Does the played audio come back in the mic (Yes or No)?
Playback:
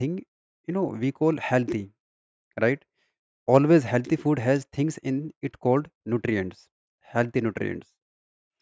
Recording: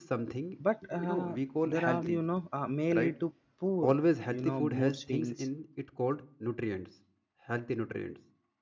Yes